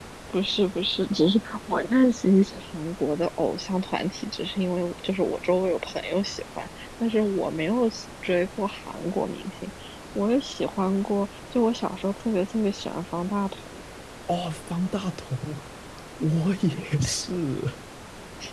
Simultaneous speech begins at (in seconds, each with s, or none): none